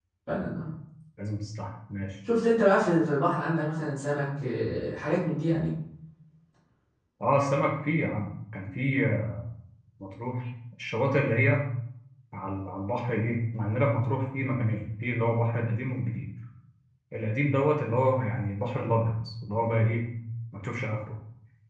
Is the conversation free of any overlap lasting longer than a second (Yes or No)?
Yes